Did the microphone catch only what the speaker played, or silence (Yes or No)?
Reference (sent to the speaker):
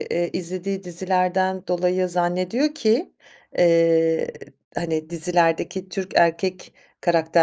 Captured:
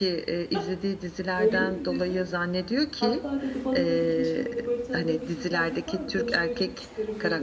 No